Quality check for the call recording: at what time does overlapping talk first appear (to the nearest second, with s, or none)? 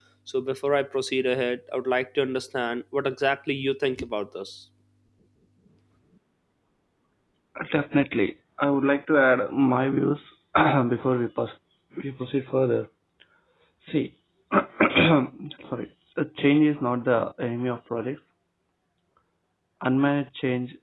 none